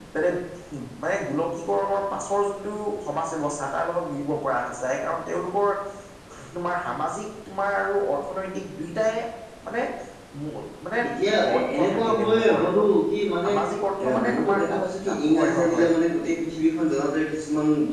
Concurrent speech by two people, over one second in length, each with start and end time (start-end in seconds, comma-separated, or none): 11.6-12.9, 14.0-15.9